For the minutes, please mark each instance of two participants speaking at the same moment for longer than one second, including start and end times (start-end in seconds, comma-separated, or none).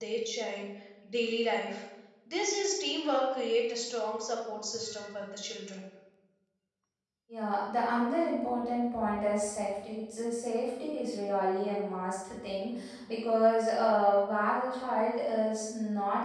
none